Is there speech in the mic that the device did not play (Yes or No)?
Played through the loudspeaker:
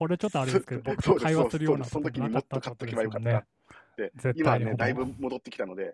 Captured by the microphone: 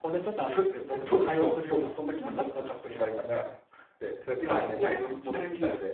Yes